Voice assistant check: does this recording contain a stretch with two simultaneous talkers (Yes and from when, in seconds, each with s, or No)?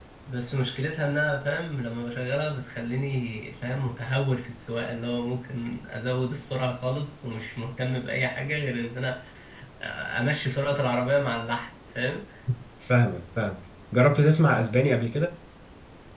No